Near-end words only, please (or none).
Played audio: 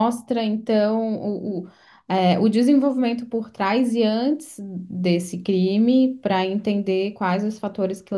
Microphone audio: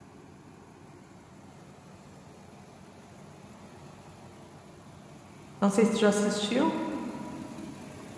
Não sei se tu já assistiu.